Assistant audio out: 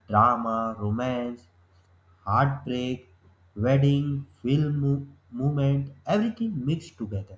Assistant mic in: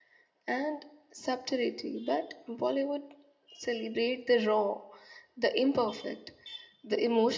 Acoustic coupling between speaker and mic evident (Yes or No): No